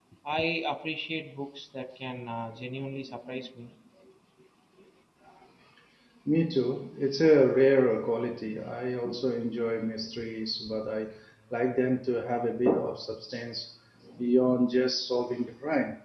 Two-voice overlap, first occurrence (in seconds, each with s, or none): none